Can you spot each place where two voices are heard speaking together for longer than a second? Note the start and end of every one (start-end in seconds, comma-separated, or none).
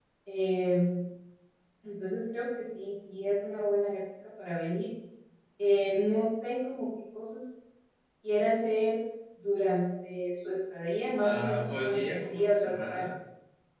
11.2-13.1